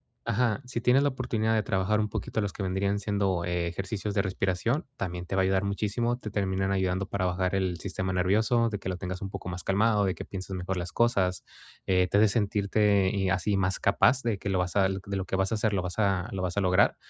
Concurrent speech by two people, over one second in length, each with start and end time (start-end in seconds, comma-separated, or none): none